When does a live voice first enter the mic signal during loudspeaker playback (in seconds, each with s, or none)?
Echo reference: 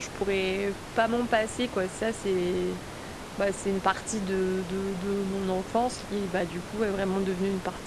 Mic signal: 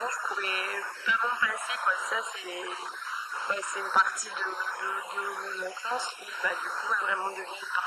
none